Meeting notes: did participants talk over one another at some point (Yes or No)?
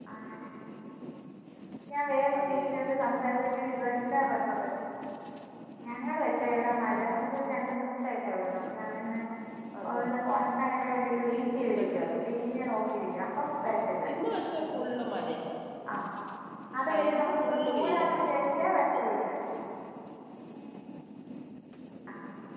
Yes